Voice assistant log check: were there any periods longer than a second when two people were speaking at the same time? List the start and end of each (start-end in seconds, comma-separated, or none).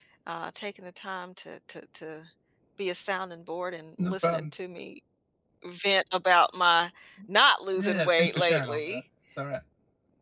7.8-9.0